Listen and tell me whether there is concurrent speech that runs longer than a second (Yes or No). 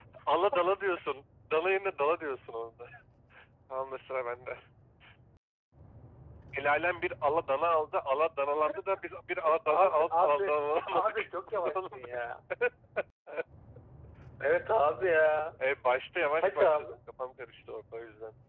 Yes